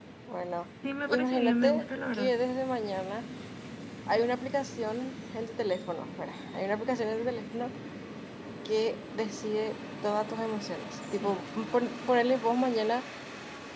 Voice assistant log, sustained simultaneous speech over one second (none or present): present